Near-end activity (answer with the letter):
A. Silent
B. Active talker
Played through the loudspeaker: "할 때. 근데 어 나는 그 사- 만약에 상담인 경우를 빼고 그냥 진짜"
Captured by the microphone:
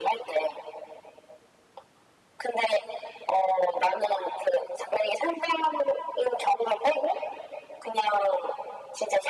A